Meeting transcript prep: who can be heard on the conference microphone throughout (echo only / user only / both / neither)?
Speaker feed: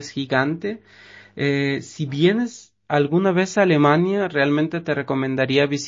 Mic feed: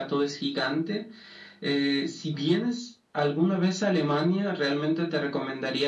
echo only